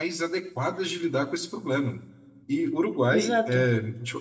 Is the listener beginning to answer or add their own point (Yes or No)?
No